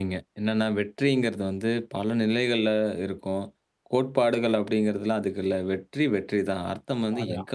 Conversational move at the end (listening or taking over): listening